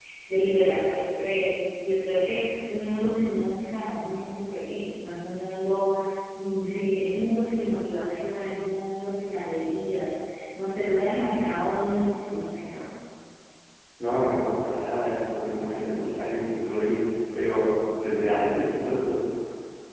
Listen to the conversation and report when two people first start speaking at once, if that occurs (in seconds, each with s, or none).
none